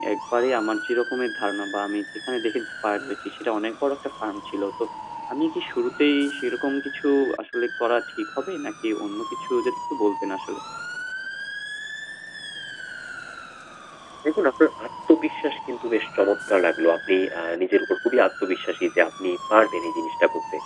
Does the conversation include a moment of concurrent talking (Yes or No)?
No